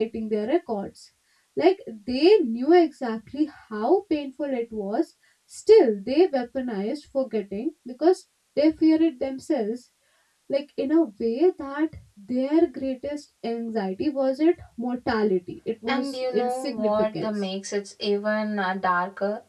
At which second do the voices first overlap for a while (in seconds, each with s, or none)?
15.9 s